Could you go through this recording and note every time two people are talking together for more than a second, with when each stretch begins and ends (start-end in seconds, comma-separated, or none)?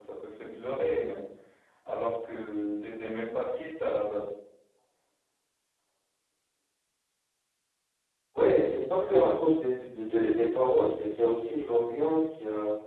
none